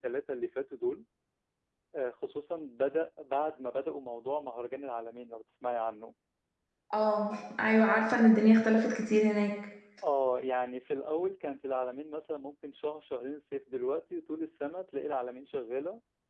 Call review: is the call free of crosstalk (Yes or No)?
Yes